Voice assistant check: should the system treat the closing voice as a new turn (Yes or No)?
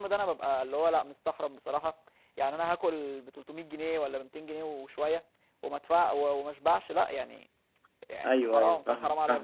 Yes